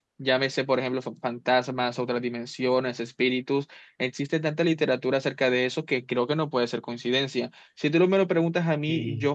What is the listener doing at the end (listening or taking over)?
taking over